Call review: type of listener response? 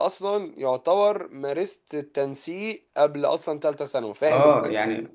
taking over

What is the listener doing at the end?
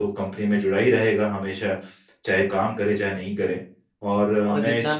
taking over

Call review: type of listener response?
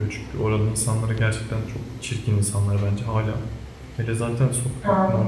listening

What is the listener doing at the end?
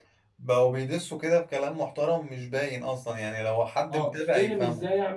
taking over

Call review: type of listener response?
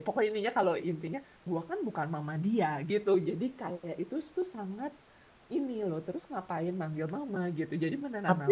taking over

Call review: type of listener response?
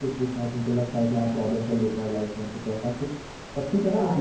taking over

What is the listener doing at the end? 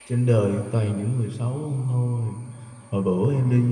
listening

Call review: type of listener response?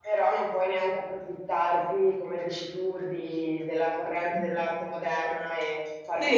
taking over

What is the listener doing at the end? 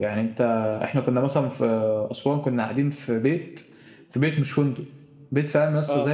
listening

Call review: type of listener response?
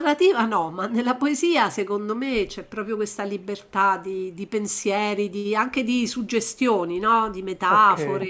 taking over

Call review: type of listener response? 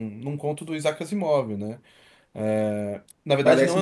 listening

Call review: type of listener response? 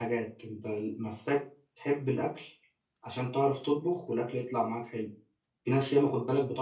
listening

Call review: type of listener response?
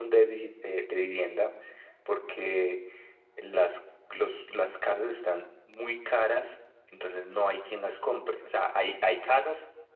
listening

